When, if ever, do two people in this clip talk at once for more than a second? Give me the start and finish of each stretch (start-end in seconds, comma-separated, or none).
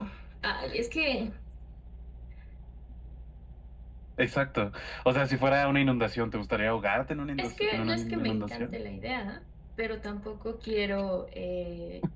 7.4-8.7